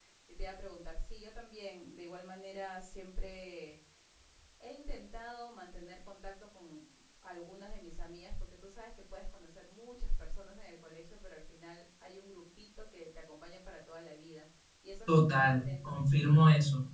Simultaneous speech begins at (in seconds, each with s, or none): 15.1 s